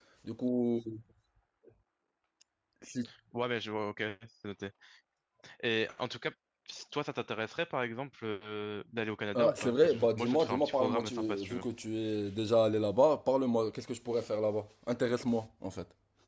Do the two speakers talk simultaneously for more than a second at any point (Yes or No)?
Yes